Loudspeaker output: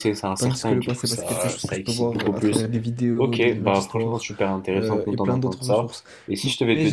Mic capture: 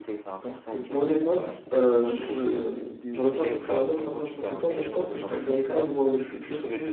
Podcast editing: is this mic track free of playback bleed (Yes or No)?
No